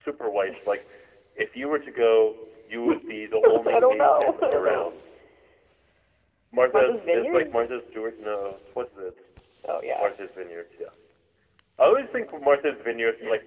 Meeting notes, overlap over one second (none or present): present